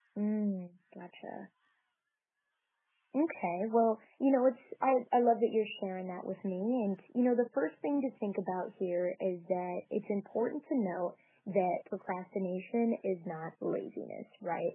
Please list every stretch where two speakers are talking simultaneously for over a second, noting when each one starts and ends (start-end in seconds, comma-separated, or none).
none